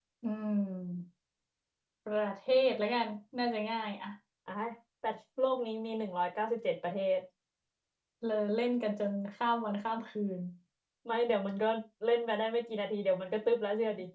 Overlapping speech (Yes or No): No